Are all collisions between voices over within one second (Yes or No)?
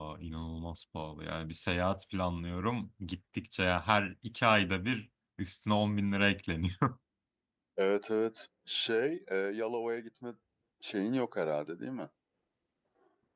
Yes